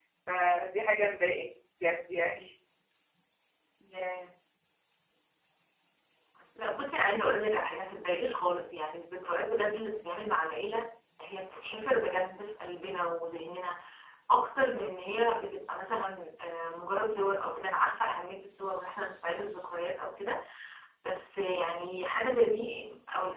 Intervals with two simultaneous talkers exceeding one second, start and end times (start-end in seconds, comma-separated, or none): none